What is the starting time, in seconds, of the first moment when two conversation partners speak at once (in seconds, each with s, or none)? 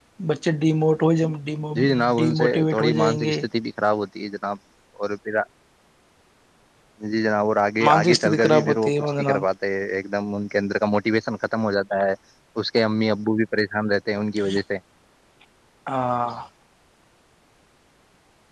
1.8 s